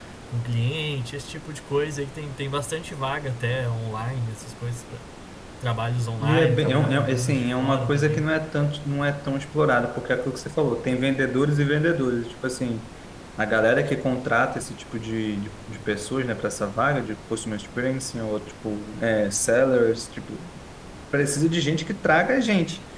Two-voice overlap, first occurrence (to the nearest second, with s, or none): 6 s